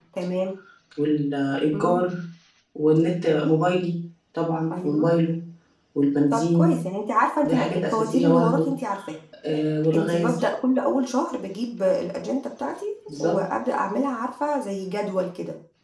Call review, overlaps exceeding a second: present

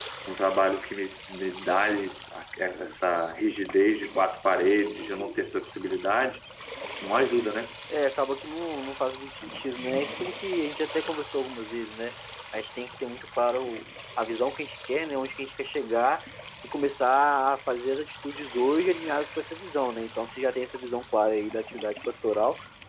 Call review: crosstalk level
none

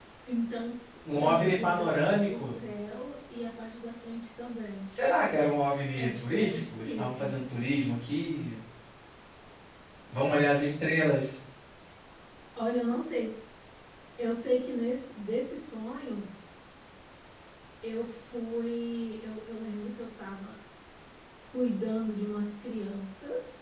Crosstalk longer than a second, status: present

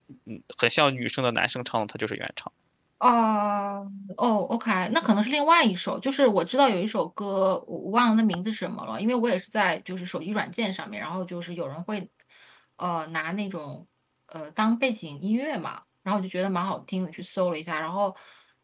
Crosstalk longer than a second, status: none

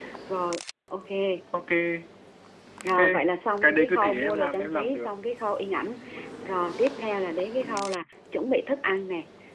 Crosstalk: present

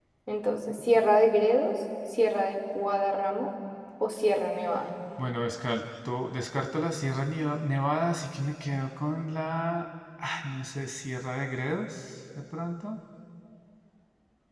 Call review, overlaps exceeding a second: none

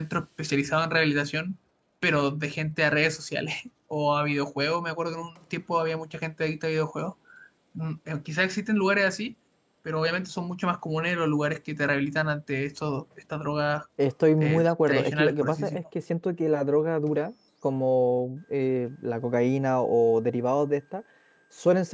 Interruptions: present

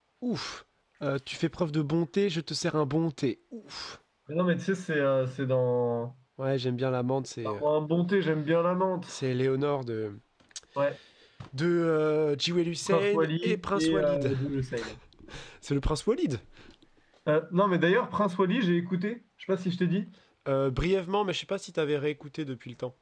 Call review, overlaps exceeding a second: present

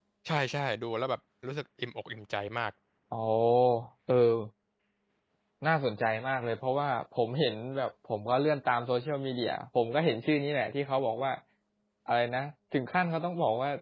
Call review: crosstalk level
none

